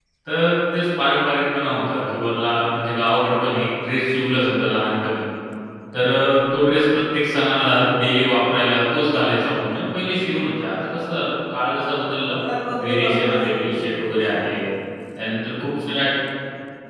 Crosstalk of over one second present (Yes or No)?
Yes